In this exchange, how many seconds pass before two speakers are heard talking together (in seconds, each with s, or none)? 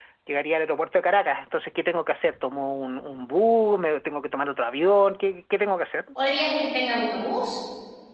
none